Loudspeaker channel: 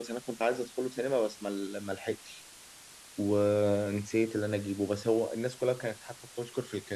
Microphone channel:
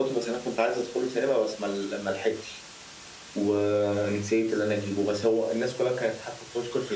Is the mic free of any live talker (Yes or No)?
Yes